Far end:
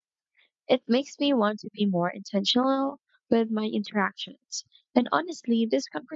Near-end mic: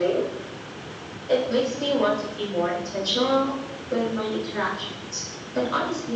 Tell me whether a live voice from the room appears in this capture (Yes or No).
No